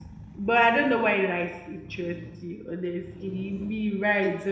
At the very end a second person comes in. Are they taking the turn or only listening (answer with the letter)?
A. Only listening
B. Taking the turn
B